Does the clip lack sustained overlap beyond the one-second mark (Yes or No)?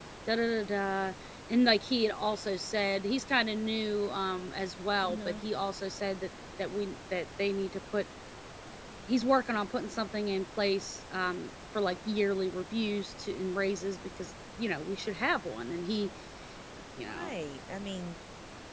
Yes